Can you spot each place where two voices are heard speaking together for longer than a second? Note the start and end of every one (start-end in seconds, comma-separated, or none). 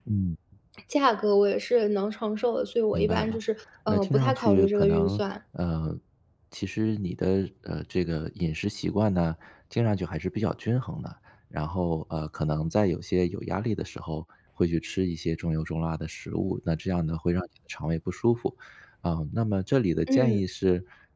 3.9-5.2